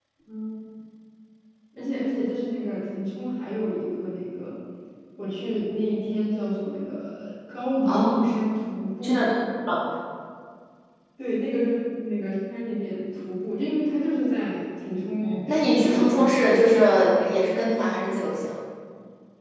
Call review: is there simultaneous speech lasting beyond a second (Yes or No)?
Yes